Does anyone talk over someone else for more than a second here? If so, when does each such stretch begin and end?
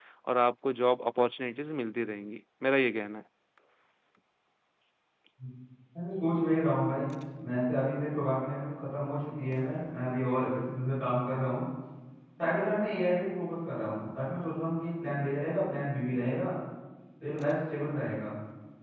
none

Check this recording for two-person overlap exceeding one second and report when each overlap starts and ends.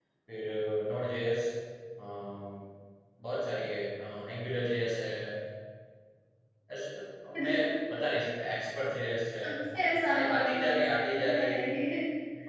10.1-11.7

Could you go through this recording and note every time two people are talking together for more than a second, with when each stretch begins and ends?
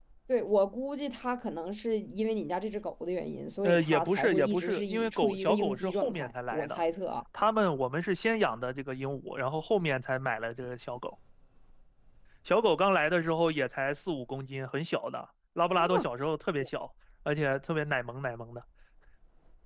3.6-6.8

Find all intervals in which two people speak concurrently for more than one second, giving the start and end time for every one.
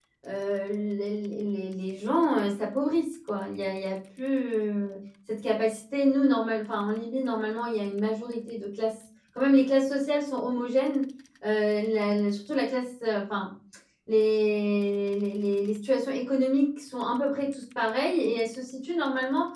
none

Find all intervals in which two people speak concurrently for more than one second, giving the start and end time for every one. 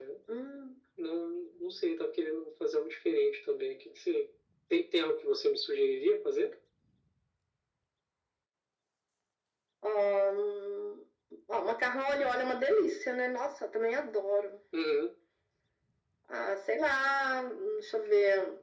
none

